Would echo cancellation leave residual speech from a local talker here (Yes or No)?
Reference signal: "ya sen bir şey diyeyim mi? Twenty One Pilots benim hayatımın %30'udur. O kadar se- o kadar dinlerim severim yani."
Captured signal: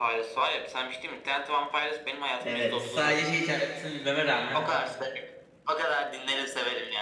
Yes